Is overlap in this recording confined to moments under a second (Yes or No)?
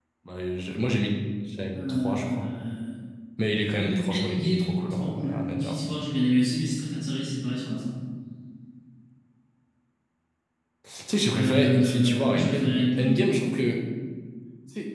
No